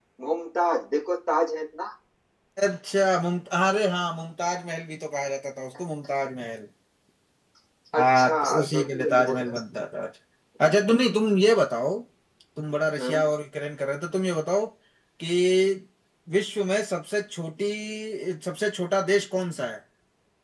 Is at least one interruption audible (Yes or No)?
Yes